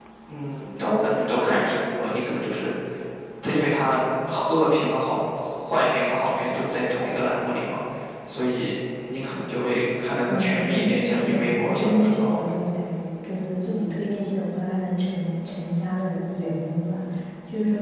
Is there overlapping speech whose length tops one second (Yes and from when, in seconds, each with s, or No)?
Yes, from 10.3 s